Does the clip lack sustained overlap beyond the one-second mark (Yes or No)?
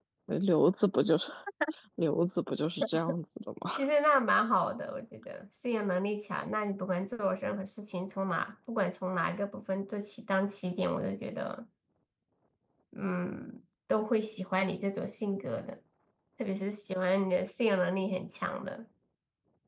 Yes